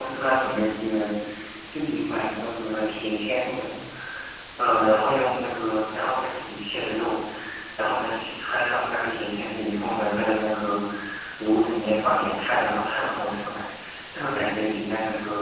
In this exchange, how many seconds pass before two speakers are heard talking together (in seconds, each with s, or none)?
none